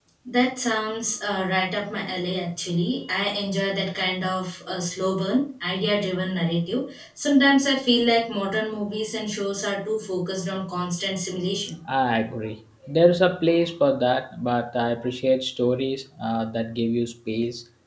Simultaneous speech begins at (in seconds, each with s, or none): none